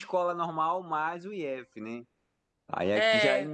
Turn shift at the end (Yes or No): No